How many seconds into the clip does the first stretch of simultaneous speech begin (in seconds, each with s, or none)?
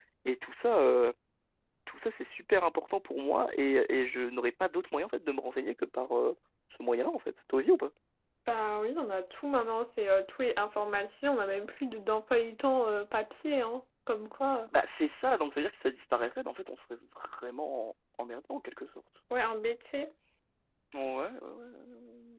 none